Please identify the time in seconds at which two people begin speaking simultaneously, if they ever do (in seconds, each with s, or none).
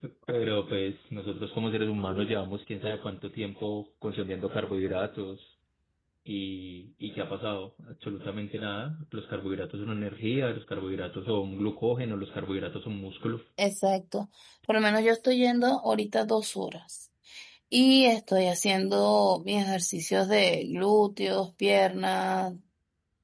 none